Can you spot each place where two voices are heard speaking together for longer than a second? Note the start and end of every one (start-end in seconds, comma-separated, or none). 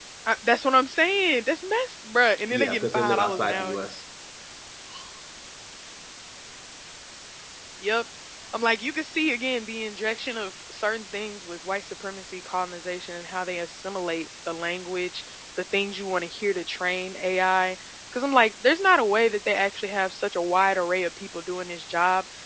2.5-3.8